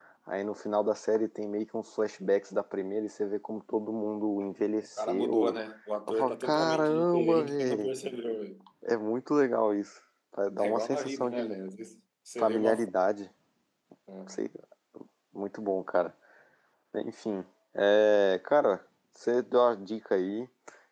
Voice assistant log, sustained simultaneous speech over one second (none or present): present